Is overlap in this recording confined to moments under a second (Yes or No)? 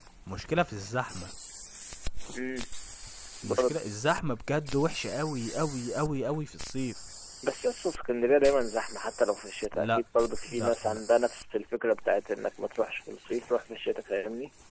Yes